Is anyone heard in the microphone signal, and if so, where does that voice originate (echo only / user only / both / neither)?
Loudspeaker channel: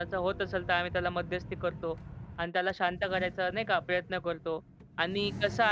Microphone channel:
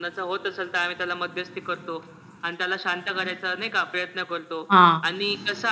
both